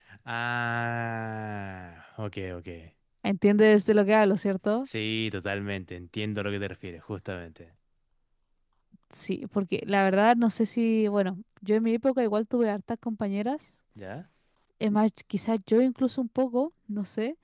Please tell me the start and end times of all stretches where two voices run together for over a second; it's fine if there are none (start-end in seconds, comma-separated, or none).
none